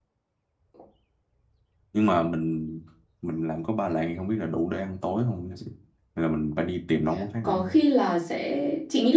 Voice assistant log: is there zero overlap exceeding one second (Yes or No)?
Yes